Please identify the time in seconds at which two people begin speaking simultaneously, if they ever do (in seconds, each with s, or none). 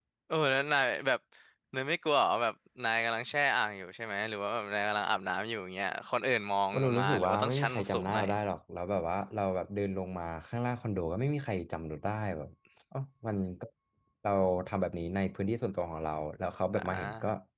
6.7 s